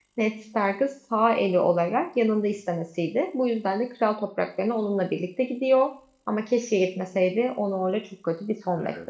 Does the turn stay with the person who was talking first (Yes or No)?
No